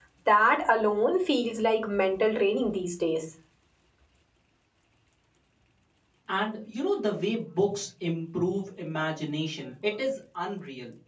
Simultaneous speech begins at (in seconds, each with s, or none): none